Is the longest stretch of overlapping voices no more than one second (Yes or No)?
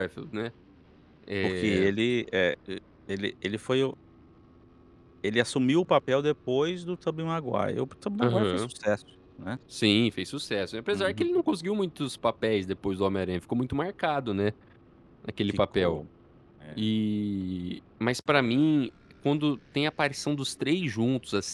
Yes